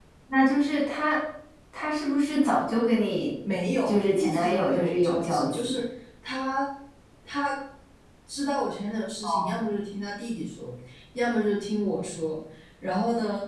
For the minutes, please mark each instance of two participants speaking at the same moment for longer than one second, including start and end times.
3.8-5.8

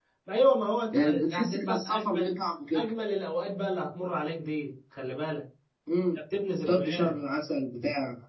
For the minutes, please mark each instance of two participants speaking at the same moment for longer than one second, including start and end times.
0.9-2.4

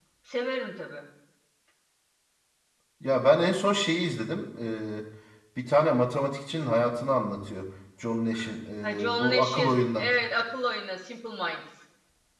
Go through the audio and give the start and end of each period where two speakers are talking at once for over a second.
8.8-10.1

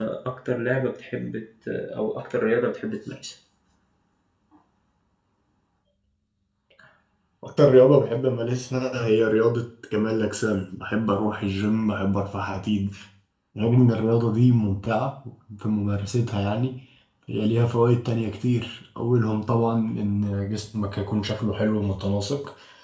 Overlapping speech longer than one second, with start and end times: none

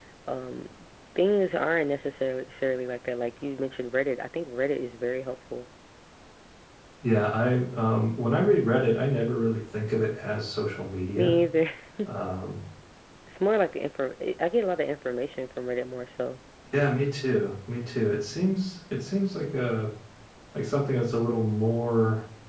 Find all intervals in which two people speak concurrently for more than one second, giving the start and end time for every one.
none

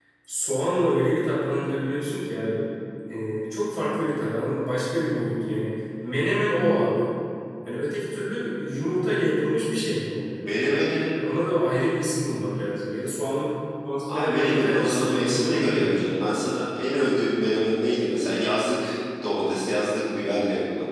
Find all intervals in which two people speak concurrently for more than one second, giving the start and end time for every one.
14.1-16.1

